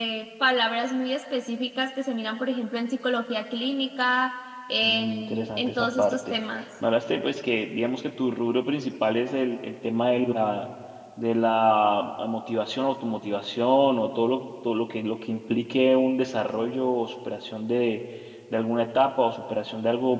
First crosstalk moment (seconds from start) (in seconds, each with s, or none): 4.8 s